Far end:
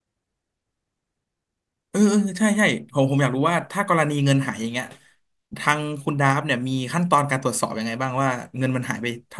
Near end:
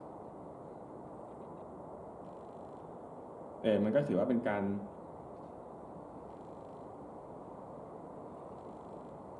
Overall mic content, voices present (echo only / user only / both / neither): user only